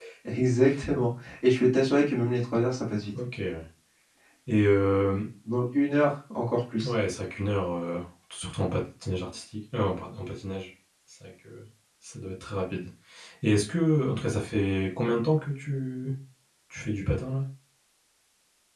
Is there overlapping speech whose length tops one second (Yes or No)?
No